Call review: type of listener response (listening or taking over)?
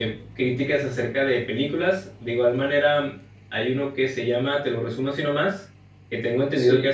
listening